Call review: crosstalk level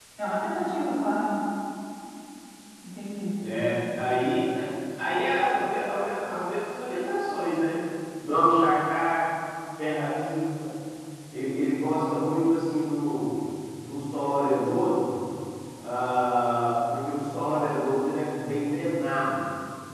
none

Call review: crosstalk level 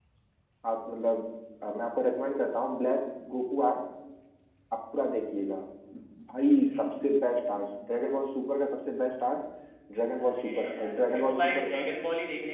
present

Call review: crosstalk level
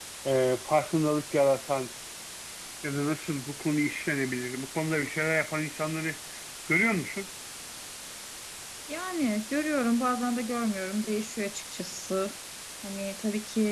none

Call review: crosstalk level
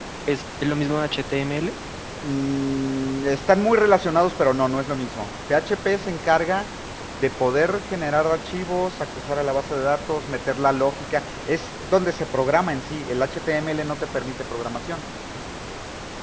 none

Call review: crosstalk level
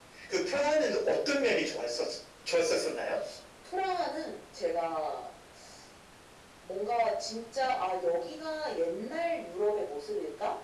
none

